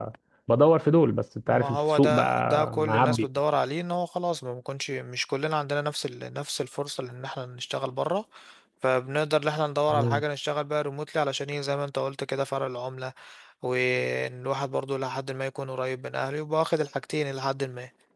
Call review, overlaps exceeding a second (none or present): present